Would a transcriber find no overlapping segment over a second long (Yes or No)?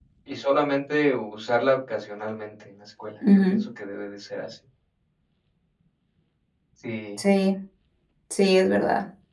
Yes